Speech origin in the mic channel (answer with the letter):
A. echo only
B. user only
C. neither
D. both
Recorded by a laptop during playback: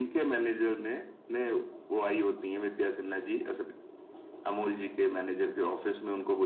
A